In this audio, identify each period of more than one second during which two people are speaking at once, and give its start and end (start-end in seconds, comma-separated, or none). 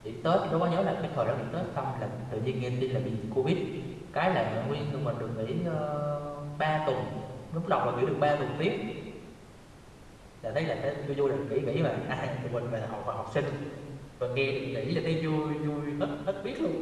none